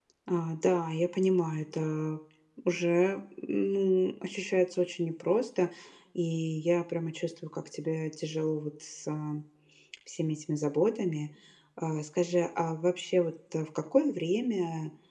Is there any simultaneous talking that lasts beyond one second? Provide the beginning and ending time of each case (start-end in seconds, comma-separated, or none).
none